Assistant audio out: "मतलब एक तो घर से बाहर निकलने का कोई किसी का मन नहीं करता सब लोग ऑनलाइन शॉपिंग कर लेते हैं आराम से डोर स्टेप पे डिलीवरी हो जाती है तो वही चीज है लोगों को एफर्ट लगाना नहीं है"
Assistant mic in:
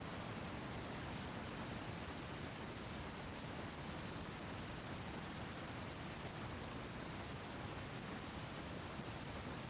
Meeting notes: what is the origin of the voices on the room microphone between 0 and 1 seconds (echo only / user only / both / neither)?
neither